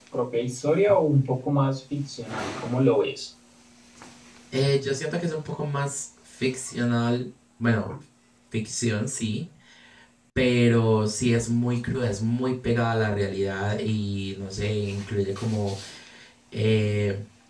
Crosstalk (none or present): none